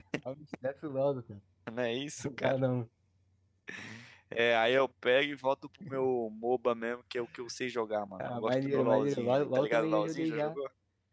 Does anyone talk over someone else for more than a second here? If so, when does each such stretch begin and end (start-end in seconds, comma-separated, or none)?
8.2-10.6